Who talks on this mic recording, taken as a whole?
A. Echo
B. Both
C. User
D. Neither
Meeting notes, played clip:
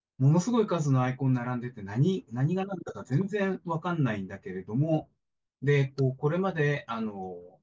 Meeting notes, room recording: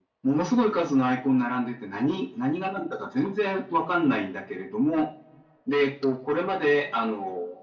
A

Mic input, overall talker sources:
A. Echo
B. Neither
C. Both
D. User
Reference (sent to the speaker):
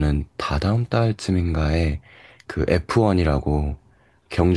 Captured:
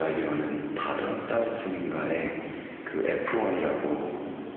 A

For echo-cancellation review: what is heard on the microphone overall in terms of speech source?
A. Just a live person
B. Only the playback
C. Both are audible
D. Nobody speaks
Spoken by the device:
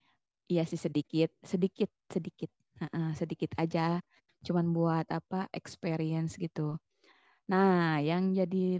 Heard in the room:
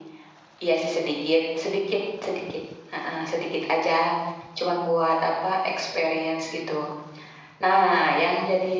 B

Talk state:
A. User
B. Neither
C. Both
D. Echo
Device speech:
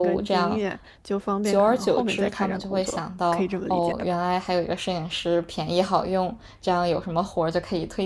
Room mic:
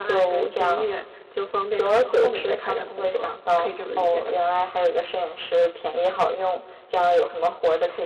D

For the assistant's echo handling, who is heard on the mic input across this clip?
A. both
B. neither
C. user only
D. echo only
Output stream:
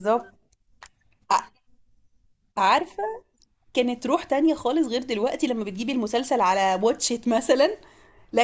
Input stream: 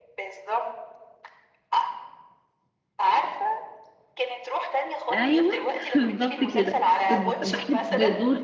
A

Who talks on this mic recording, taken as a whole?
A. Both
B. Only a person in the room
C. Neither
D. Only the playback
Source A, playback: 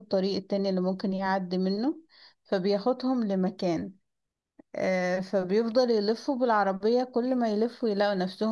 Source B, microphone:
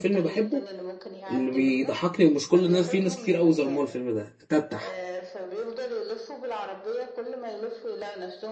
A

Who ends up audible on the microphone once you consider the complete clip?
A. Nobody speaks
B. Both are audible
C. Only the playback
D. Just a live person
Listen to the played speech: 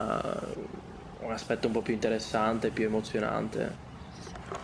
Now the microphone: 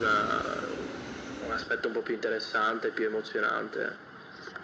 C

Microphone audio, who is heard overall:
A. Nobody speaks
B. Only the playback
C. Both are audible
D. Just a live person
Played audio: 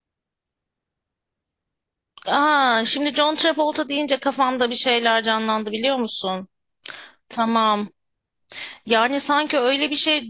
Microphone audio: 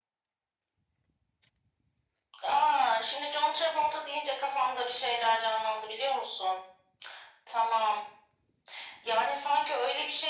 B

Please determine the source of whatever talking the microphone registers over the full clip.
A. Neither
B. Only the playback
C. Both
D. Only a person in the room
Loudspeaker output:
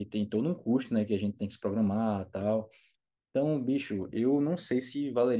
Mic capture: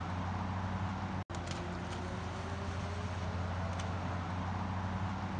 A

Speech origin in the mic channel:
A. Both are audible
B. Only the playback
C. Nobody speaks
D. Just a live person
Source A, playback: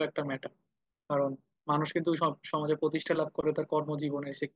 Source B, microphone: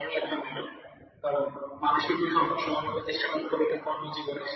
B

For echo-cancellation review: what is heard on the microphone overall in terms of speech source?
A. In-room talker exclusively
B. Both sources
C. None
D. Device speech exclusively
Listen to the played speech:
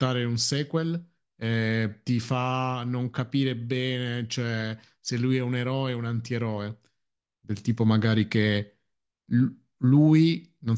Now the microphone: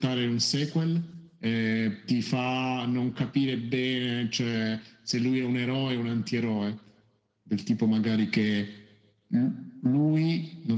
D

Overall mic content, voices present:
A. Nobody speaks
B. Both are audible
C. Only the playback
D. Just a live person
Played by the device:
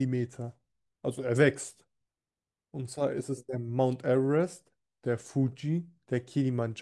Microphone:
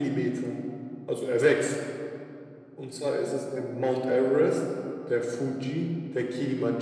C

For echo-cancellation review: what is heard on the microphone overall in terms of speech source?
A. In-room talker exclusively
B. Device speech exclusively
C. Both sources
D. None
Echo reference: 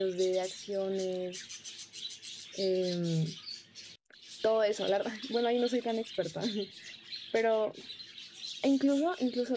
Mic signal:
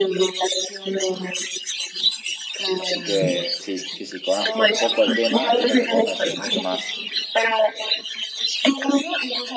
C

